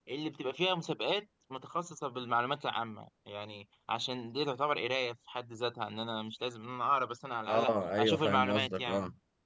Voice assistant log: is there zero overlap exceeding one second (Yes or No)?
No